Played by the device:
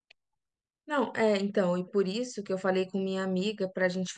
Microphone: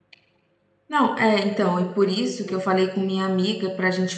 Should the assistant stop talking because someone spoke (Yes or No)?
Yes